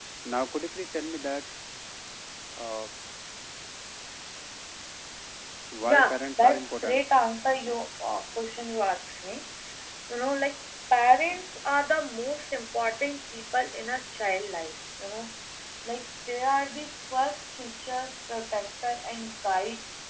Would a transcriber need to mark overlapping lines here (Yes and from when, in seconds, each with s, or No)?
Yes, from 5.8 s